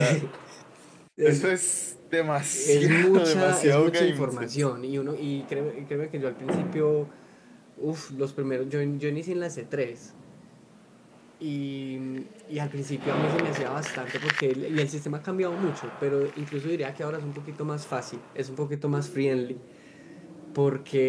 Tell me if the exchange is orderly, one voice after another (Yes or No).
No